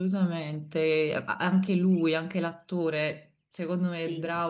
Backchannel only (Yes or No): Yes